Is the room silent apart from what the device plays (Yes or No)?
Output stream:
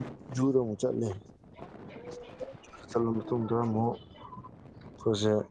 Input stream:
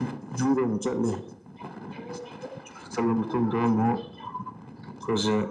Yes